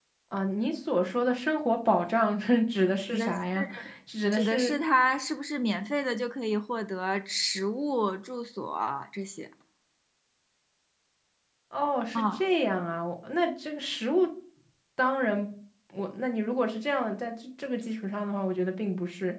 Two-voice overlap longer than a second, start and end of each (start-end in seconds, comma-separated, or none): none